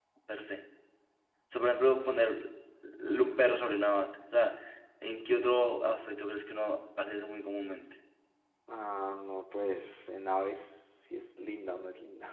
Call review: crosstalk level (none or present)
none